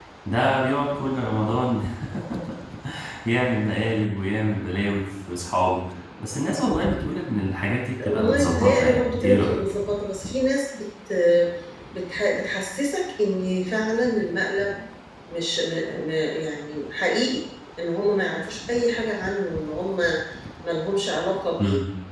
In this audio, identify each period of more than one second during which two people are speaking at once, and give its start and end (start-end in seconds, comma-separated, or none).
8.0-9.6